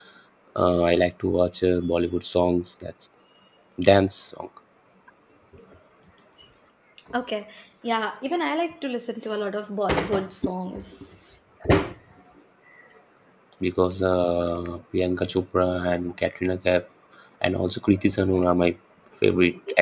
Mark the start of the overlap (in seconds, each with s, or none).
none